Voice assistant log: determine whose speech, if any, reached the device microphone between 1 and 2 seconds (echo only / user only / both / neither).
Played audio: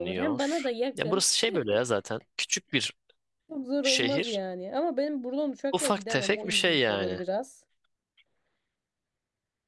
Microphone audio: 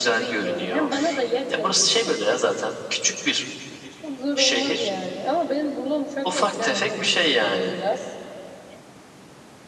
echo only